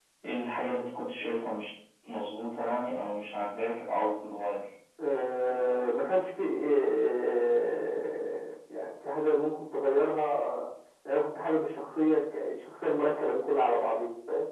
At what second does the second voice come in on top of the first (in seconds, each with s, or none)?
none